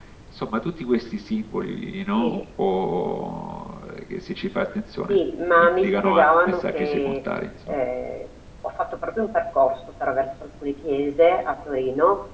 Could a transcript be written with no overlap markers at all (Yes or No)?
No